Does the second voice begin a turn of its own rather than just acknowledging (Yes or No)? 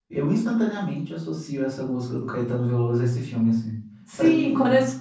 Yes